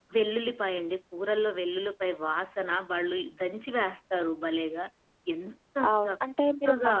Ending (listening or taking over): taking over